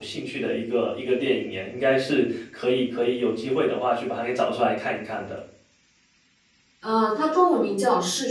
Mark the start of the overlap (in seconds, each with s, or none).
none